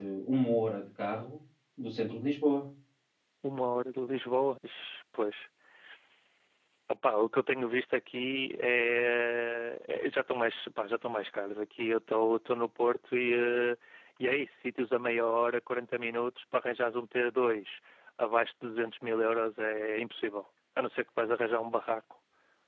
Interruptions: none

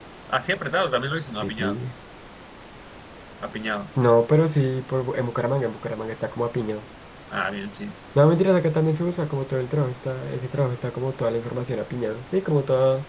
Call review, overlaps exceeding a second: none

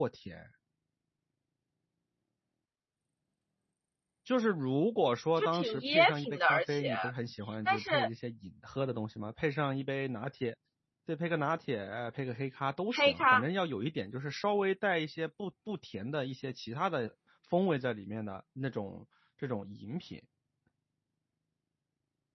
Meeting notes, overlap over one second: present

